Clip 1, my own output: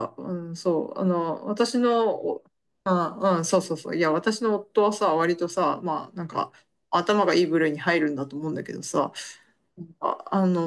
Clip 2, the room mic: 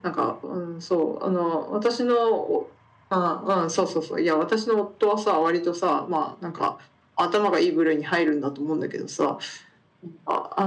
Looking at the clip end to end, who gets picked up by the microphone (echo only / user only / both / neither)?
echo only